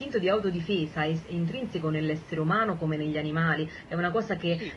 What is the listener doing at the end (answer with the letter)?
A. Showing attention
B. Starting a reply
A